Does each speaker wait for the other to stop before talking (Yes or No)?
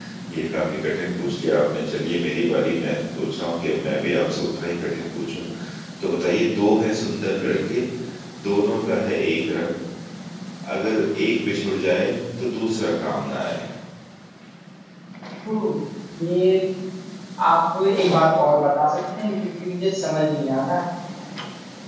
Yes